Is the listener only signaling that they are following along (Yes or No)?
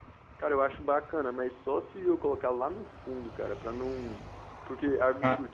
Yes